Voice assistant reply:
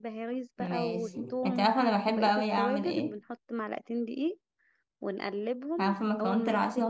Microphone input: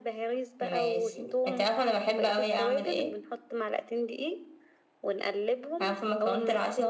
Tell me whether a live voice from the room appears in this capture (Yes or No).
No